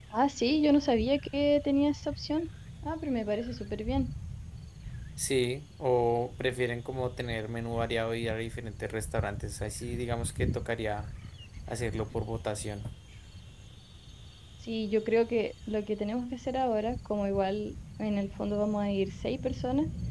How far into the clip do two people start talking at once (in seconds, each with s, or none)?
none